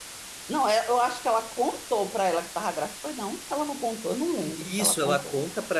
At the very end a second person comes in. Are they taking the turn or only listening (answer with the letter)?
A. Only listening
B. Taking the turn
B